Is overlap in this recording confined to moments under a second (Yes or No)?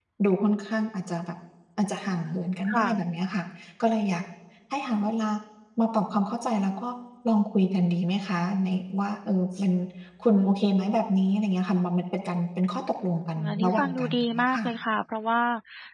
No